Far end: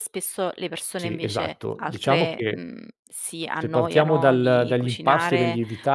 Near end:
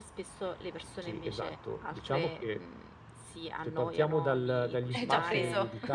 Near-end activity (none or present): present